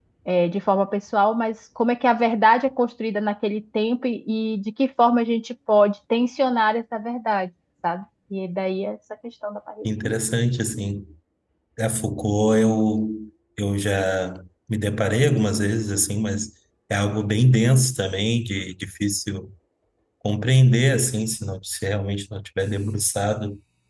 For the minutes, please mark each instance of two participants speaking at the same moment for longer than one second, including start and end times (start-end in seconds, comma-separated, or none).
none